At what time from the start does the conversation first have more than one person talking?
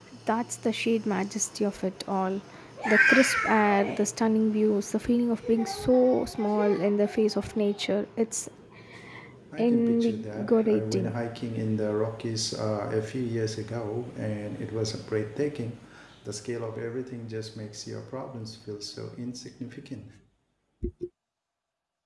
9.6 s

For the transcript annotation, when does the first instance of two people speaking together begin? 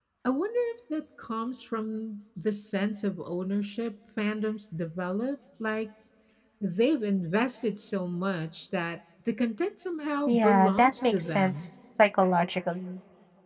10.3 s

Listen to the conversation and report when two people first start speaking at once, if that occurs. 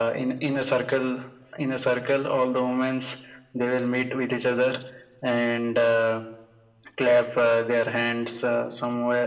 none

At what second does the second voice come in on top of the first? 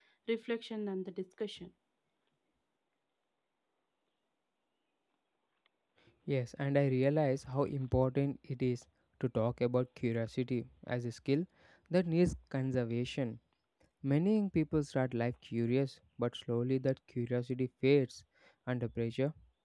none

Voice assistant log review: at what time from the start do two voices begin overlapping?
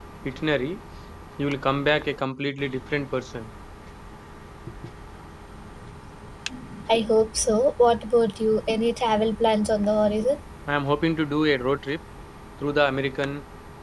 none

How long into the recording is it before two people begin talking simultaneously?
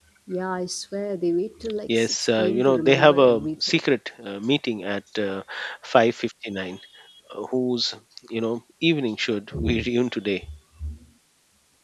2.0 s

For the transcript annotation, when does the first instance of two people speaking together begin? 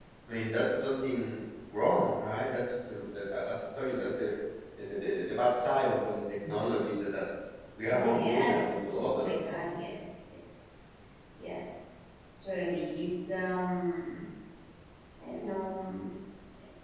7.9 s

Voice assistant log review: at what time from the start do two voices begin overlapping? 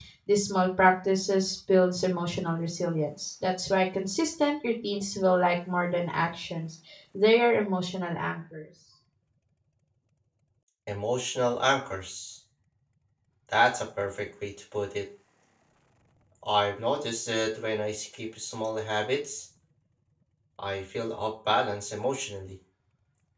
none

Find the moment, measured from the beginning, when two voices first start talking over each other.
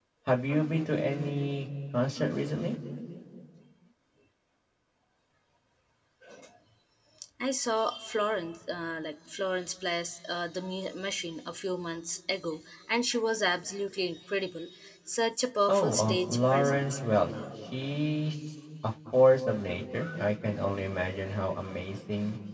15.7 s

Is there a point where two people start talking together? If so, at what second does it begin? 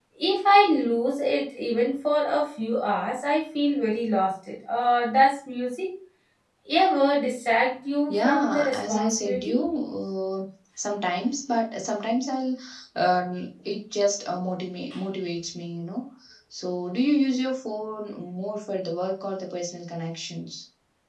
8.1 s

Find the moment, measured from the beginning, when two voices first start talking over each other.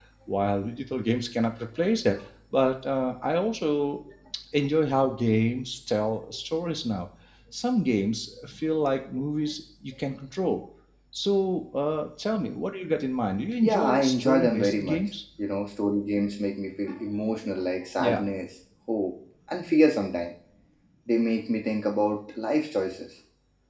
13.6 s

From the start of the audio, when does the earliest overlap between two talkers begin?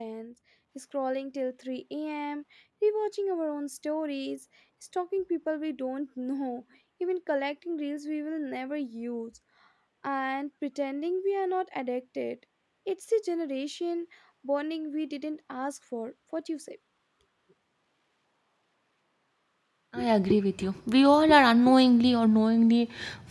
none

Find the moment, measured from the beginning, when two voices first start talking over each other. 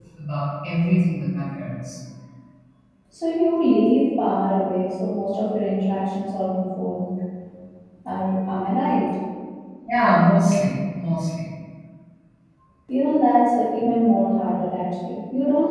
none

